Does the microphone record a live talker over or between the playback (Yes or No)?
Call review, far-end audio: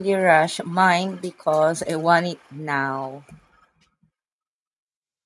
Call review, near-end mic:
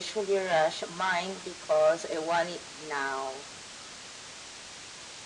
No